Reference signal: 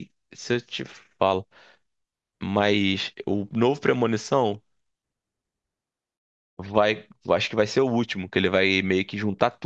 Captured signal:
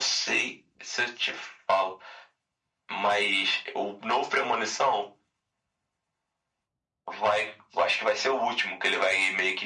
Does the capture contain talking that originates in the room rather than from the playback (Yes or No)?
No